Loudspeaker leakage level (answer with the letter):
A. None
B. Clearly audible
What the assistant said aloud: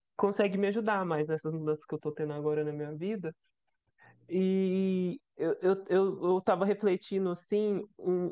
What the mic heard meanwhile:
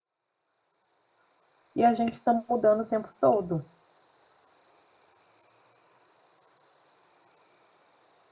A